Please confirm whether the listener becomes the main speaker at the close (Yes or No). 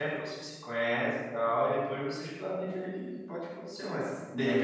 No